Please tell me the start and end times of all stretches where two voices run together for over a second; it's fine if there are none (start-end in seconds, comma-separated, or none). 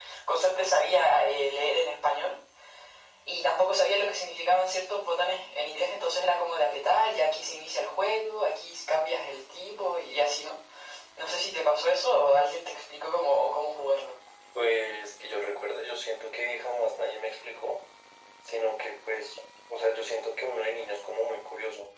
none